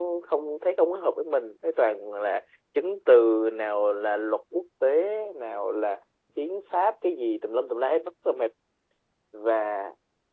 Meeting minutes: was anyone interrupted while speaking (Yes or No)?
No